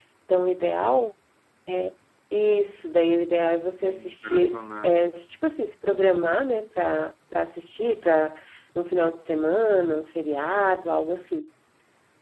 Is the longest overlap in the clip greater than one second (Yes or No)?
Yes